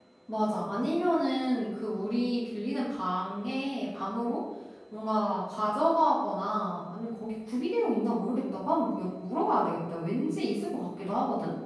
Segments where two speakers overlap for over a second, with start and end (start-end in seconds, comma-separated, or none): none